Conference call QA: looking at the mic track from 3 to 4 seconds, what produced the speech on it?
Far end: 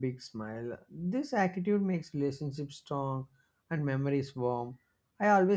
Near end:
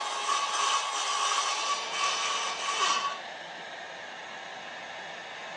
neither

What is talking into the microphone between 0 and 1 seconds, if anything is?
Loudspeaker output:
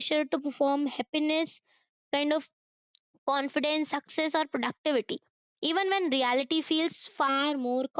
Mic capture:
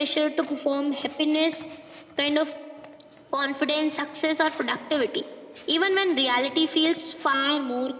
echo only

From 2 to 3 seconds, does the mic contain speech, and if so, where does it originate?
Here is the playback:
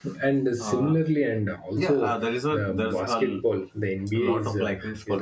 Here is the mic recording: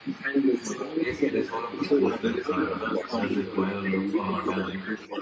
both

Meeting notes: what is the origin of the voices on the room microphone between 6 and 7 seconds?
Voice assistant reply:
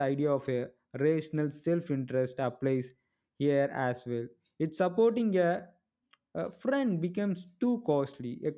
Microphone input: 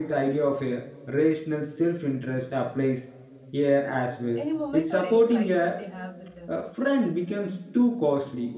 both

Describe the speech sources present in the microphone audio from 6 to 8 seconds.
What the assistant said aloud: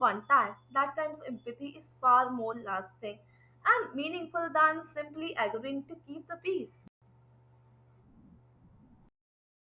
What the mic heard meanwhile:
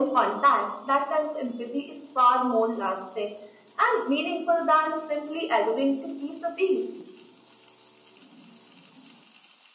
echo only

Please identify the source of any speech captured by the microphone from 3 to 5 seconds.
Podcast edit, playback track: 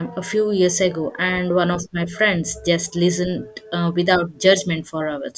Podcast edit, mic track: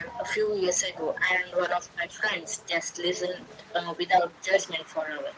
echo only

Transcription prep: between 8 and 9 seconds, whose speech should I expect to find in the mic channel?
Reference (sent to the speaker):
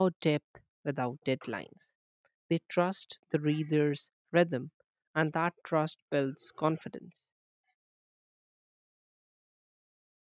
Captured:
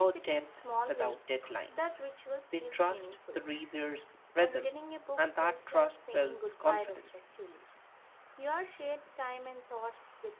user only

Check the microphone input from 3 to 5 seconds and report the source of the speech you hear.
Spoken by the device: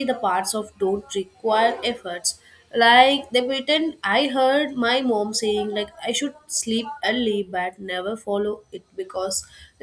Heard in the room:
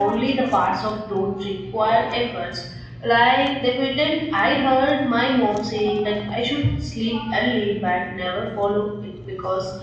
echo only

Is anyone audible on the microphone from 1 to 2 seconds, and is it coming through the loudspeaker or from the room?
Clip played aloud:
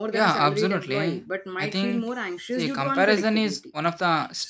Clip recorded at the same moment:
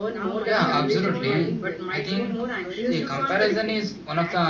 both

